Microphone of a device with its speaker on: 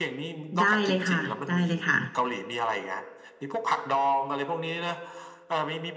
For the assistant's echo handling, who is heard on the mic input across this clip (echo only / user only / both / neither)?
both